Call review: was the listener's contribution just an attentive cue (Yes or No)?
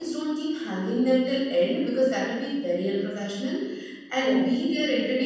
Yes